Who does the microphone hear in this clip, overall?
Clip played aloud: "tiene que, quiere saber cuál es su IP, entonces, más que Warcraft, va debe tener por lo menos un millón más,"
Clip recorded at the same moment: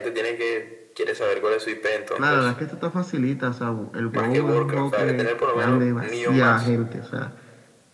both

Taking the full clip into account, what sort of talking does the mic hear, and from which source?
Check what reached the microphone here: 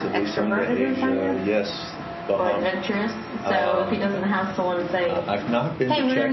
both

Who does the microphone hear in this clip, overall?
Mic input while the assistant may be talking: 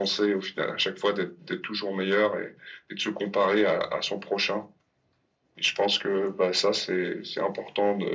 echo only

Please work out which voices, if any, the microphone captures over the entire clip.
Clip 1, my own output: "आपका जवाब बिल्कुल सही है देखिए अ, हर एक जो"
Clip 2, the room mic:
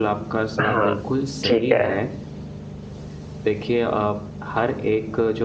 both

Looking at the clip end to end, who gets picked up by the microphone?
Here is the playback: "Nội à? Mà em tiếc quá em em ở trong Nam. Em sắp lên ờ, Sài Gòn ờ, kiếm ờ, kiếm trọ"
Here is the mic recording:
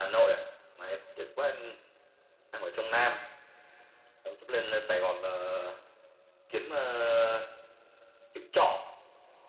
echo only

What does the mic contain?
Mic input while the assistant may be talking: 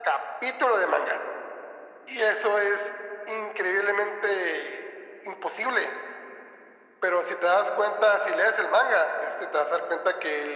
echo only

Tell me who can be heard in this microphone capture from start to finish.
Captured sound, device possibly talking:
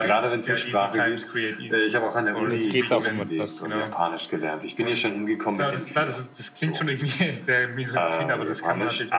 both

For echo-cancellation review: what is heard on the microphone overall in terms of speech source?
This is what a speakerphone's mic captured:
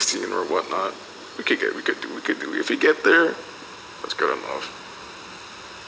echo only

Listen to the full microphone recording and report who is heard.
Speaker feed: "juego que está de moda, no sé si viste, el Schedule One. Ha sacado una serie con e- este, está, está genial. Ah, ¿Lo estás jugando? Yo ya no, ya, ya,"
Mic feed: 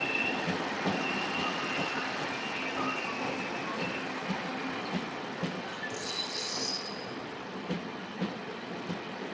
neither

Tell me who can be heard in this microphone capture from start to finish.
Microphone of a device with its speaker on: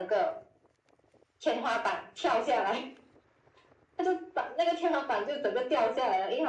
echo only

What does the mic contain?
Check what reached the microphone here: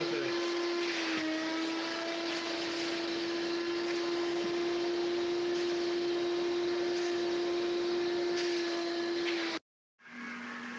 neither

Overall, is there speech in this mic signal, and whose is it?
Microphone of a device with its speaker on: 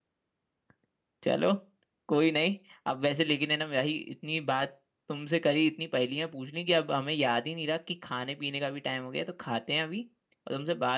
user only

